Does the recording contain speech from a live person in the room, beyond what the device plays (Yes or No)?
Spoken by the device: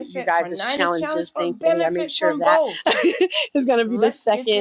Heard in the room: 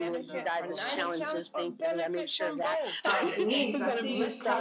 Yes